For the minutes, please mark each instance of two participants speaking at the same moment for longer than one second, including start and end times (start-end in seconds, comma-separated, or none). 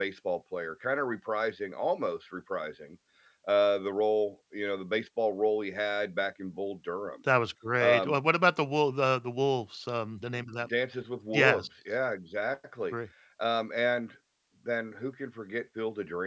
none